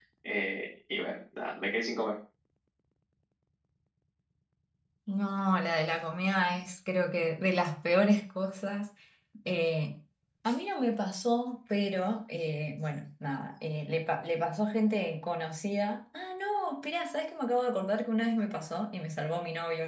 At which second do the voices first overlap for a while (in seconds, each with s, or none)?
none